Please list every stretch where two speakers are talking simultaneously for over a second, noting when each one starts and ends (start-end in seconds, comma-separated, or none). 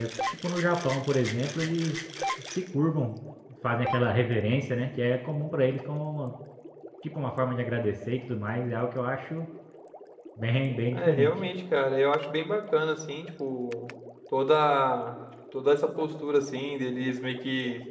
none